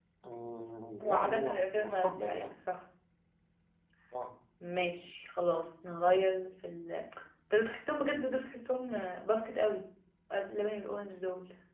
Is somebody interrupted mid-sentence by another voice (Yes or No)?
Yes